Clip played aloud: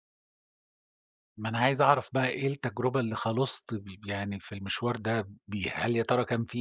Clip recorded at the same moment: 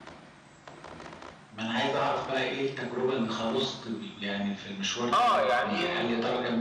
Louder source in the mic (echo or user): user